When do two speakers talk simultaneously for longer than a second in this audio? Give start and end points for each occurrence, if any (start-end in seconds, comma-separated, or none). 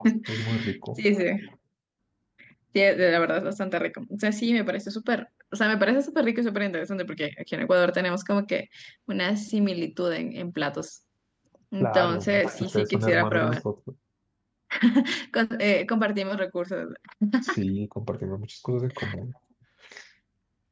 11.8-13.6